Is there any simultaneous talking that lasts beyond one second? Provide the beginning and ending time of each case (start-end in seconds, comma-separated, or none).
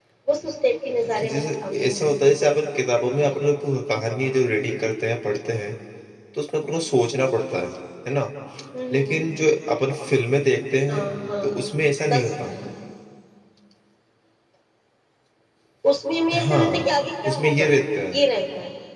1.0-2.4